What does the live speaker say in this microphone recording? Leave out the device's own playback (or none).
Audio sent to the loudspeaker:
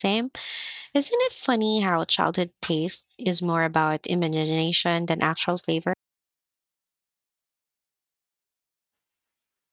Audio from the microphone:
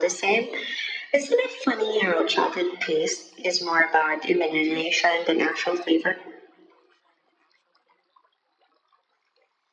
none